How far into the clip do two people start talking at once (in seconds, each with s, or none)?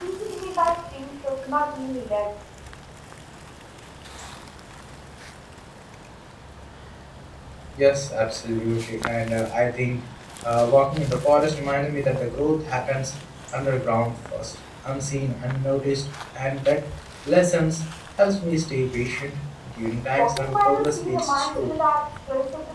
20.2 s